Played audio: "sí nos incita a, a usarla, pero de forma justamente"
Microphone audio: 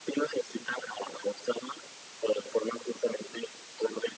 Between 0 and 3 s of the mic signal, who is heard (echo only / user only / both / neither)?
echo only